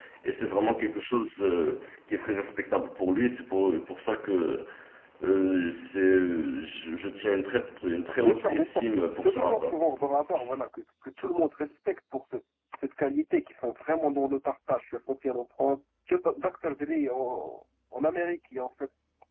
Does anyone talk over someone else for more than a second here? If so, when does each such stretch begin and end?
8.2-9.8

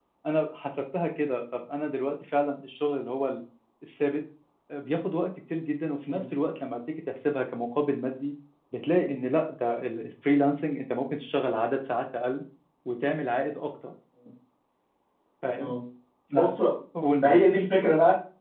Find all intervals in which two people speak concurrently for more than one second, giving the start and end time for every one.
none

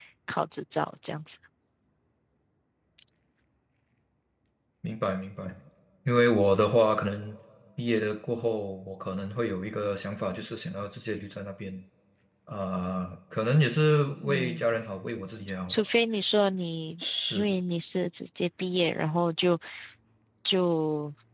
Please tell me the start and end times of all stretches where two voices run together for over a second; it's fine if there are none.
none

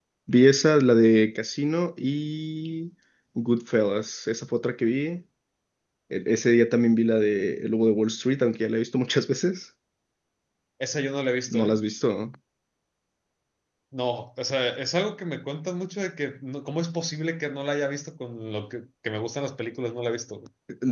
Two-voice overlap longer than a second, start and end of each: none

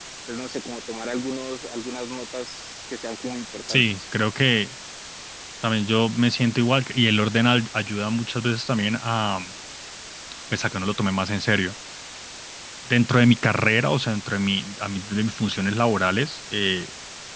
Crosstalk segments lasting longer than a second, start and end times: none

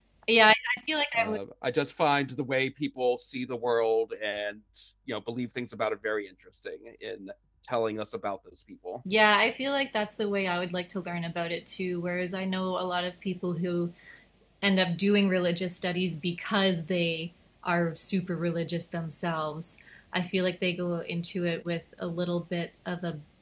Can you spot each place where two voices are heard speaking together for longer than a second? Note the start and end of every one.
none

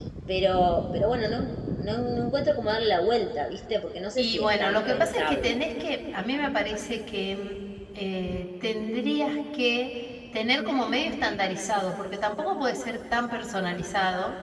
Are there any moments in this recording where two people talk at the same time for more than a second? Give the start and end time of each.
4.2-5.6

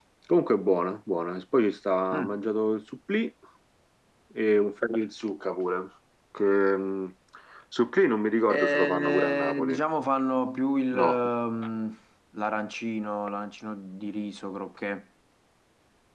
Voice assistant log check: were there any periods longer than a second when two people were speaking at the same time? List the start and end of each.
8.5-9.8

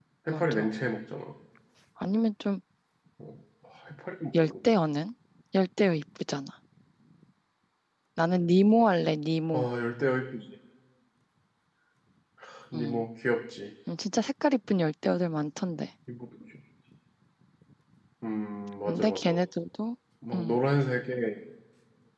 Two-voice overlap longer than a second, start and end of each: none

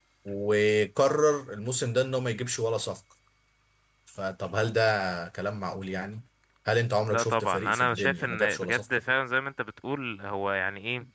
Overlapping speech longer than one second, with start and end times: 7.1-8.8

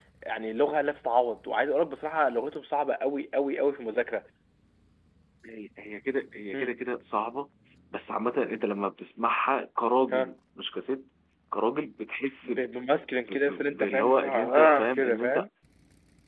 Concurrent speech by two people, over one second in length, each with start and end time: 13.3-15.4

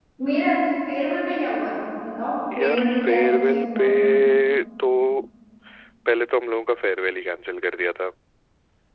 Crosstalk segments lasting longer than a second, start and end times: 2.6-3.8

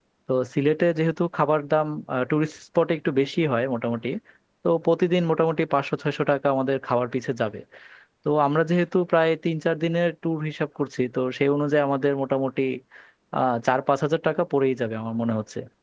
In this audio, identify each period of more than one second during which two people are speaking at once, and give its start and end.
none

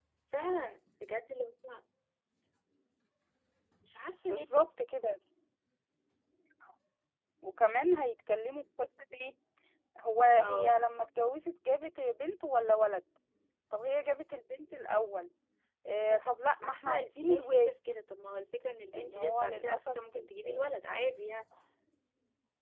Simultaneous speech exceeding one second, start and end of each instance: 16.1-17.7, 18.9-20.7

